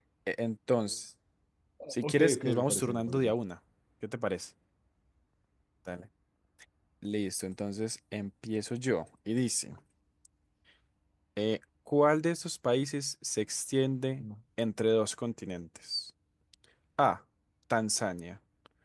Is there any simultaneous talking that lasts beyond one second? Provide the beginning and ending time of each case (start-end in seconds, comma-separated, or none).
1.9-3.3